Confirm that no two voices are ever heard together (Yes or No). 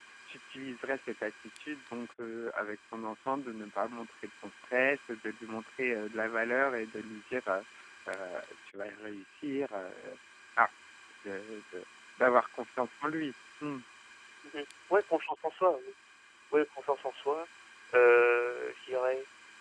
Yes